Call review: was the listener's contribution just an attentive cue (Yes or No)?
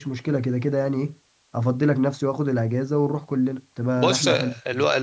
No